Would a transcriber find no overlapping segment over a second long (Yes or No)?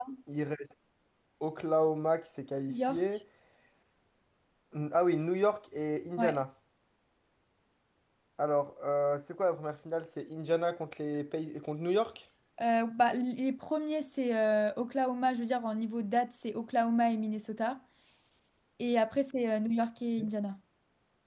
Yes